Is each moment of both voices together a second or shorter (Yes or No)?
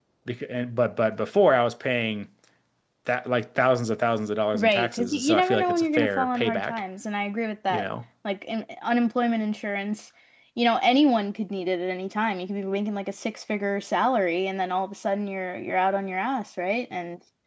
No